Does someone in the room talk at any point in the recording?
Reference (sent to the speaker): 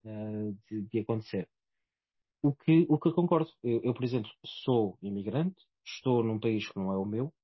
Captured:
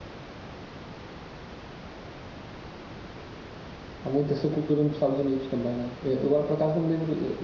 Yes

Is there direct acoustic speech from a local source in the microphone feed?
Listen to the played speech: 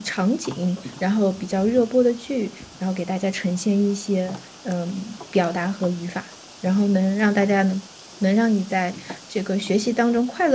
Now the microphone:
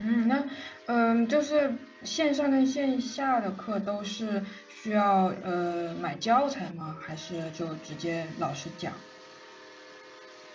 Yes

